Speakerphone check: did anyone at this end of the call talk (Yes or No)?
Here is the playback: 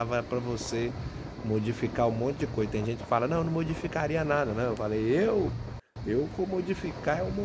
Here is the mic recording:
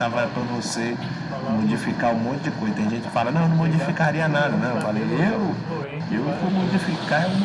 Yes